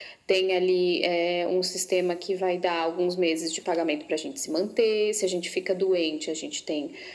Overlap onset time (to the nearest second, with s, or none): none